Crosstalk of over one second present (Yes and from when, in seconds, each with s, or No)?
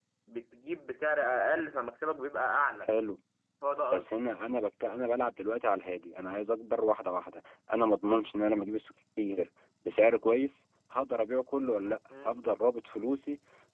No